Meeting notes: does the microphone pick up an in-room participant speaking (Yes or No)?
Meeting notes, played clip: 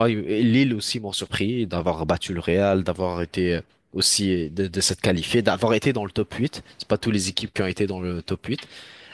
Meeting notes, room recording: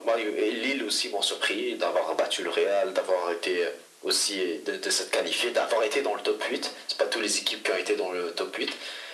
No